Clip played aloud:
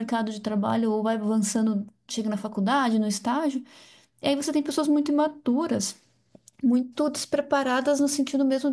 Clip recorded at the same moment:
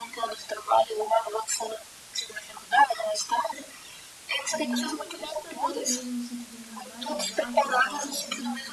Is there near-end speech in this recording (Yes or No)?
Yes